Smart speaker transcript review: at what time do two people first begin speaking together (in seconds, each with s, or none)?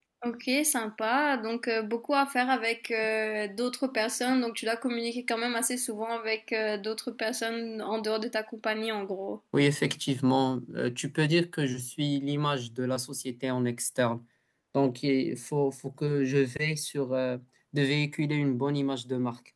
none